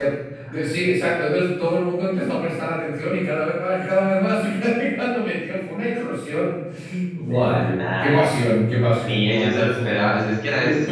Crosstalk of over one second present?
Yes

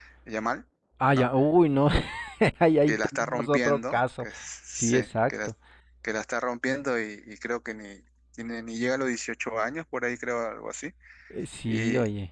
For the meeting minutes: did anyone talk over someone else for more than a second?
Yes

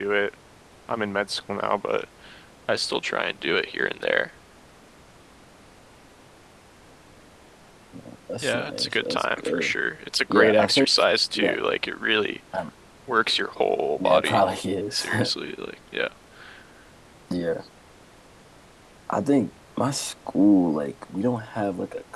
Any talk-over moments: Yes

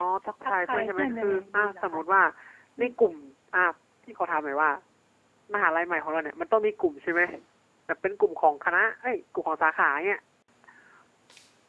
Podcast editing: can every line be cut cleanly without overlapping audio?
No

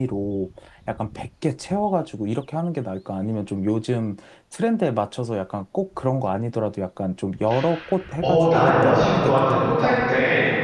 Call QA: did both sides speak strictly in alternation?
No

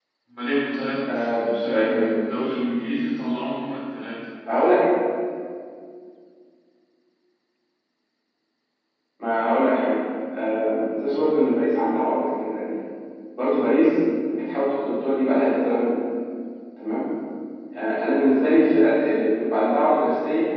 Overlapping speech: Yes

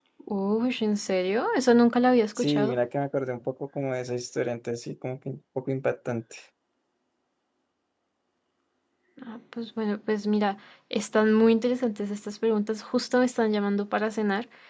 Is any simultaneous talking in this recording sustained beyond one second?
No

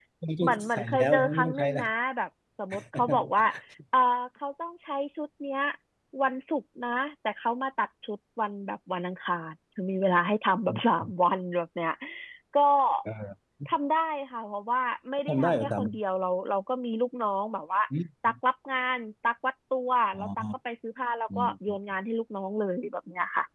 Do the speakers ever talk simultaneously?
Yes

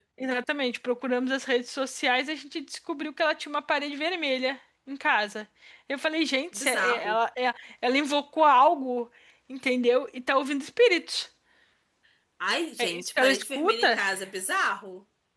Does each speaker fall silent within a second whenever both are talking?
No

